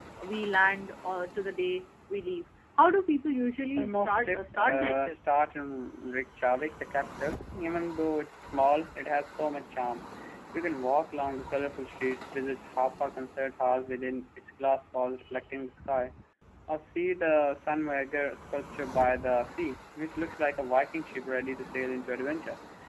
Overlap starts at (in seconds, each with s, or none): 3.8 s